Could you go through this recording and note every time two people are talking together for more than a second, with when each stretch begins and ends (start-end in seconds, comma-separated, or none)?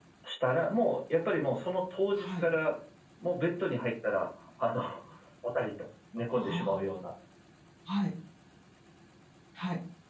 none